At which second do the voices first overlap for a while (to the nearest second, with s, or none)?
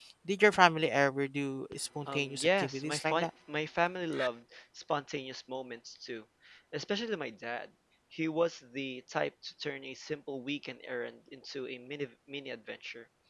2 s